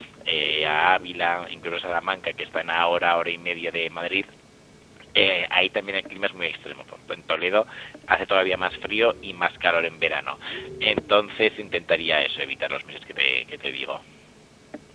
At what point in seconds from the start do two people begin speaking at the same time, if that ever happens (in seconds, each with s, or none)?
none